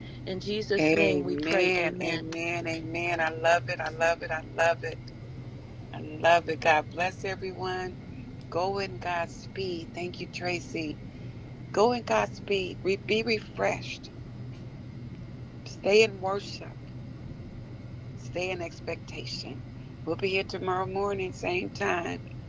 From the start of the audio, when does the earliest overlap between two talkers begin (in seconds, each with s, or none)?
0.8 s